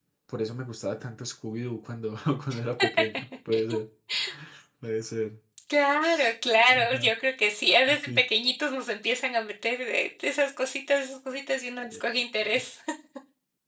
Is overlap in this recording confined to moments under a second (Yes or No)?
Yes